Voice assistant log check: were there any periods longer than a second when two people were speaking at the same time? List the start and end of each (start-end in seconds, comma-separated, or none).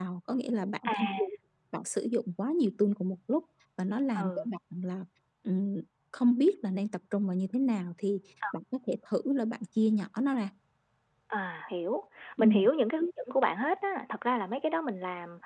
none